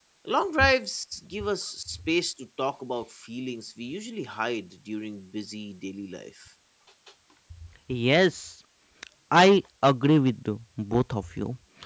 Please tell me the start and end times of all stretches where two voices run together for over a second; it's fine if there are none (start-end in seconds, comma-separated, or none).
none